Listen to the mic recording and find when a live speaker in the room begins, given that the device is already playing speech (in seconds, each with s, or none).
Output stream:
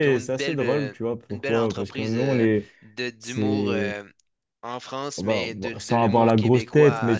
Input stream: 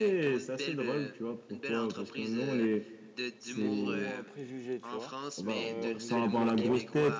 3.5 s